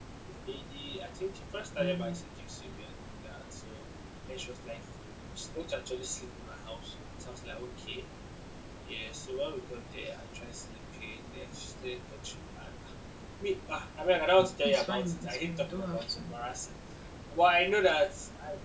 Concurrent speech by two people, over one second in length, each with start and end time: 14.6-16.3

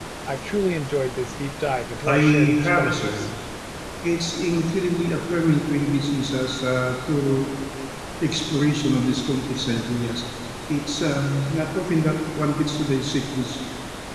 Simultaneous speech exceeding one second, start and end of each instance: 2.0-3.3

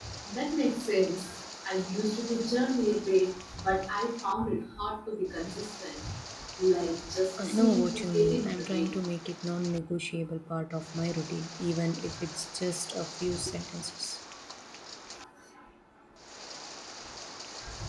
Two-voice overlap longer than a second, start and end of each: 7.4-9.0

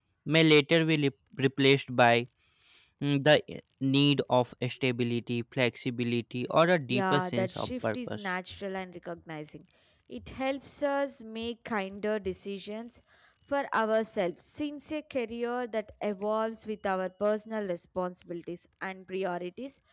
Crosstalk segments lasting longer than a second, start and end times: 6.9-8.2

